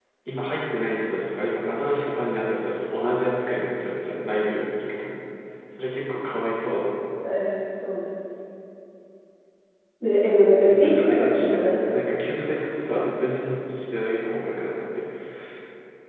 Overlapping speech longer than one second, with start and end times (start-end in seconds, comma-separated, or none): 10.6-12.0